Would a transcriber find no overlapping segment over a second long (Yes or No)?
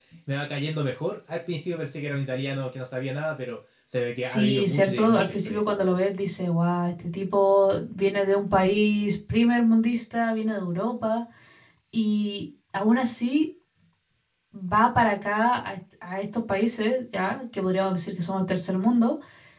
No